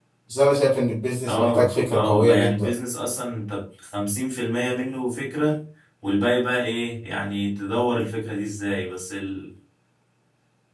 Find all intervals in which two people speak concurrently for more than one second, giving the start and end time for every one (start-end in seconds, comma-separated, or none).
1.2-2.7